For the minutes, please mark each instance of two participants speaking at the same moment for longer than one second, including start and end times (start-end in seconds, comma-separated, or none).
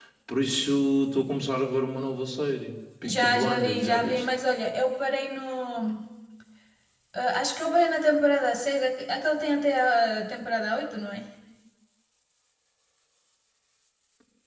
3.0-4.3